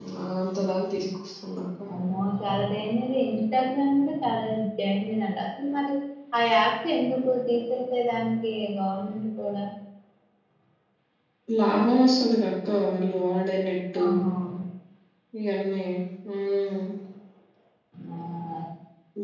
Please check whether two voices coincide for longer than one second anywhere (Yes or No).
No